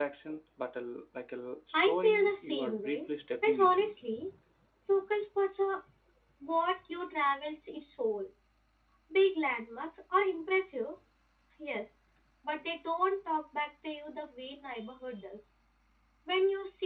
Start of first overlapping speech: 1.7 s

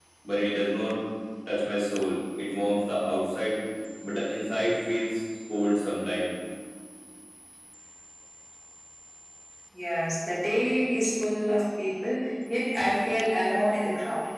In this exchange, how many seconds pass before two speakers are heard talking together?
none

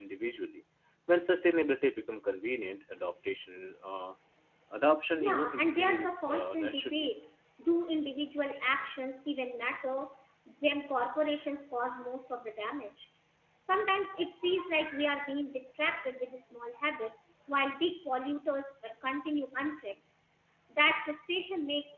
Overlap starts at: 5.1 s

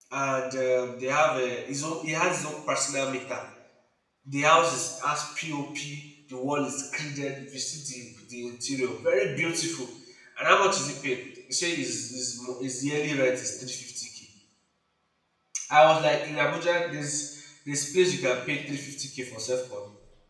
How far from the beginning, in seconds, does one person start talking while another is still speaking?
none

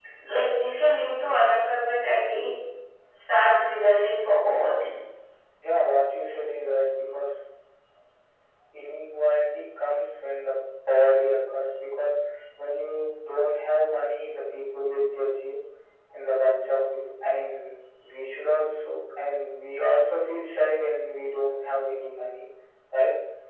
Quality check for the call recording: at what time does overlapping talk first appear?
none

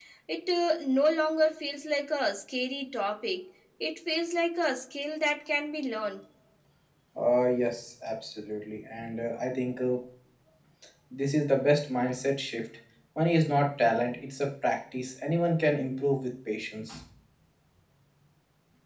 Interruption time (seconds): none

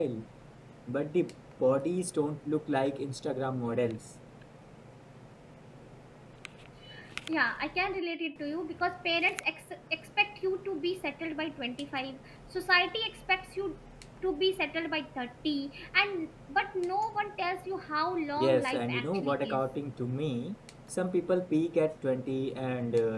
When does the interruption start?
18.4 s

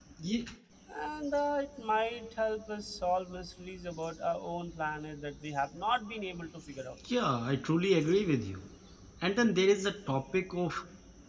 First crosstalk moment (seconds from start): none

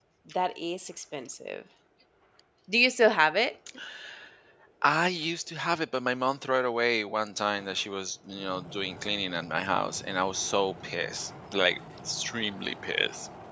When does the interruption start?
none

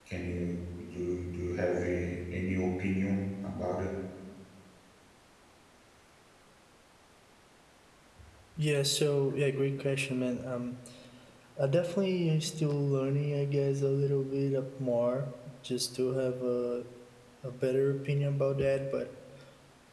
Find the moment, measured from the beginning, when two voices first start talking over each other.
none

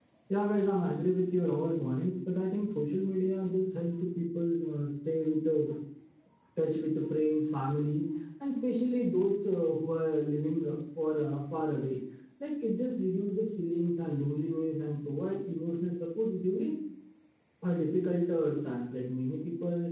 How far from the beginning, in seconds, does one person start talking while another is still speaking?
none

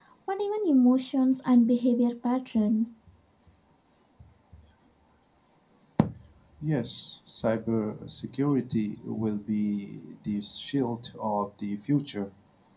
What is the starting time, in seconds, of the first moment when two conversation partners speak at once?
none

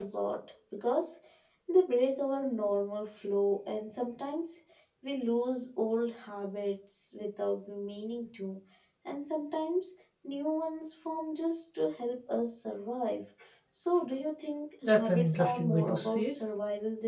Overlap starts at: 14.8 s

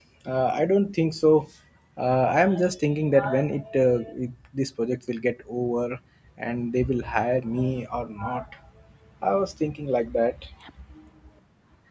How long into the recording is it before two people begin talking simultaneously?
none

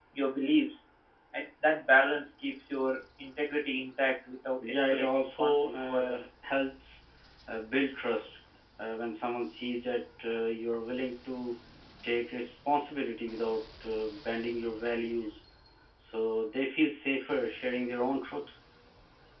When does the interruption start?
4.6 s

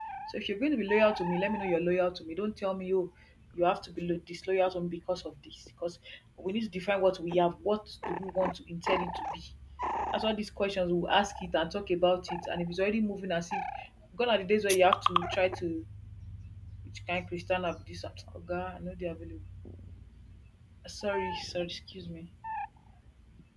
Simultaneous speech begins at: none

